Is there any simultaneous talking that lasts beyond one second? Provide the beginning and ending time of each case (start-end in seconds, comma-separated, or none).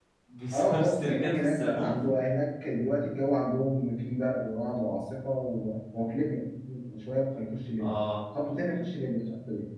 0.5-2.0